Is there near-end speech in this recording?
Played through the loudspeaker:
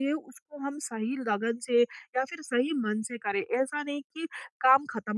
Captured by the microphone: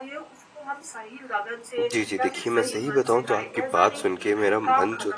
Yes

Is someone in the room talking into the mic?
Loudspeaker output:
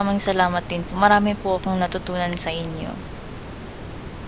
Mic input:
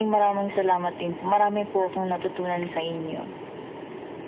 No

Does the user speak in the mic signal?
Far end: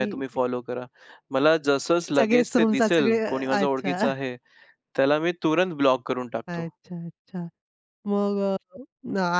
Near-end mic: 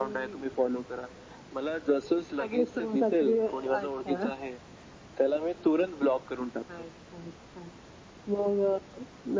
No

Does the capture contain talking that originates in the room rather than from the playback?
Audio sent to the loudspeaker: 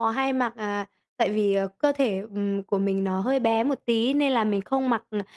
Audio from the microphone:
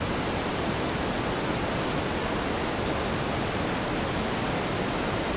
No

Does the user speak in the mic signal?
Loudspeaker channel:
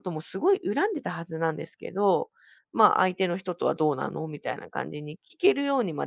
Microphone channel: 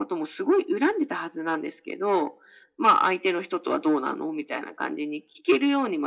No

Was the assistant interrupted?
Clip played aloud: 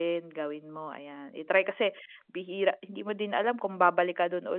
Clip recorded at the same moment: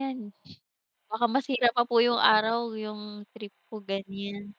Yes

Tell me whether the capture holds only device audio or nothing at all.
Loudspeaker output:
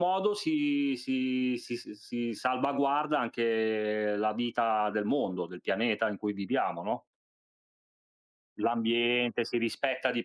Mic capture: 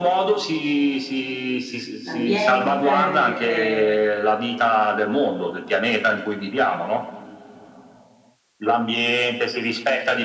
No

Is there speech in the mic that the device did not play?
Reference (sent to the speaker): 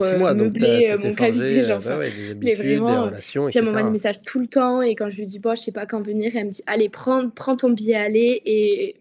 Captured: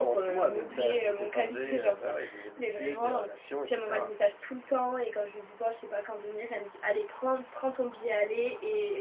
No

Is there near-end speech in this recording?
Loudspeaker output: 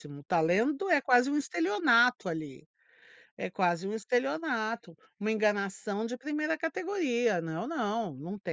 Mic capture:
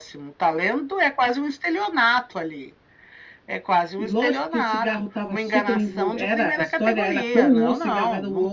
Yes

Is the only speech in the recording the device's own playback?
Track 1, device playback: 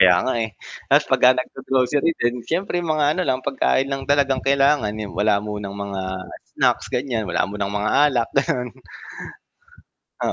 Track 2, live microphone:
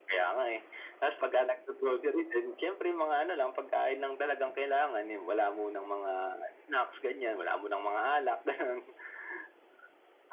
Yes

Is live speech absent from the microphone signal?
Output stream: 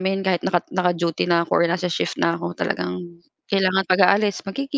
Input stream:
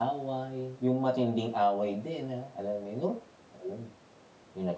No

